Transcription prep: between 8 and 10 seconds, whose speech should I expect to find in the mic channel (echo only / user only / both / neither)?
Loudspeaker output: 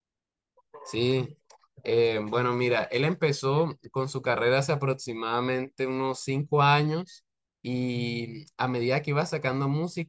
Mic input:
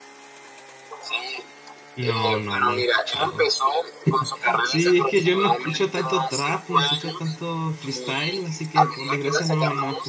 both